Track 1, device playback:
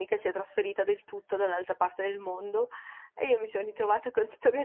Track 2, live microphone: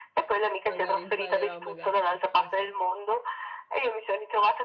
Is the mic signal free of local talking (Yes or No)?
No